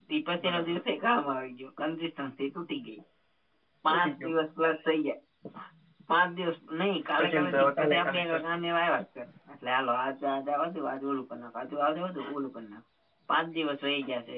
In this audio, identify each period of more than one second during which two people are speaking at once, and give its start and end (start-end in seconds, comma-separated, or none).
7.2-8.4